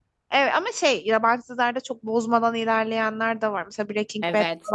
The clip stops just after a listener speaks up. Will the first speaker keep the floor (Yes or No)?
No